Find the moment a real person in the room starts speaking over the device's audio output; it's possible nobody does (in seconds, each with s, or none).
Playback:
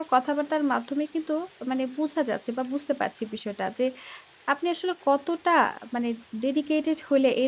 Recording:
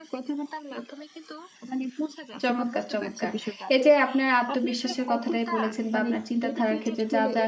2.4 s